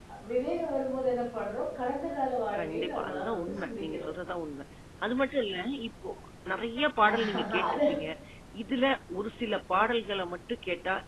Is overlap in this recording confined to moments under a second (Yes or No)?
No